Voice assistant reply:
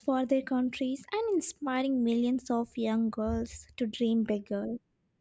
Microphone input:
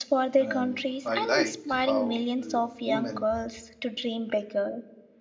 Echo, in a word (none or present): present